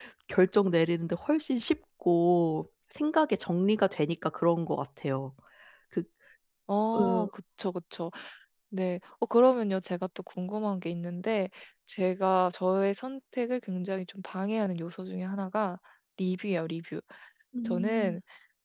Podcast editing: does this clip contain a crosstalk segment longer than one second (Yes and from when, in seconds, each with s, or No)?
No